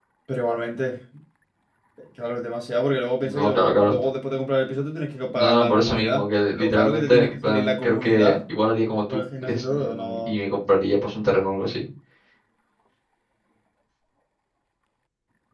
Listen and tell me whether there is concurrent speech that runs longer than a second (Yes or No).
Yes